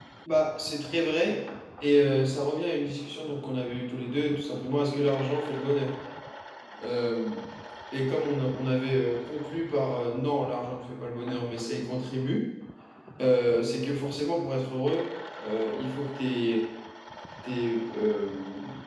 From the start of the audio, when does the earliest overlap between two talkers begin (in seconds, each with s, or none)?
none